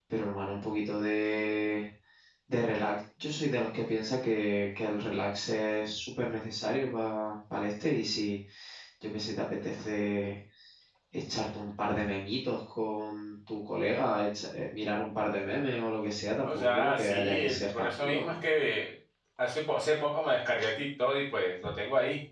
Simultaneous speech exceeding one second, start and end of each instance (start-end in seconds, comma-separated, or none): 16.4-18.4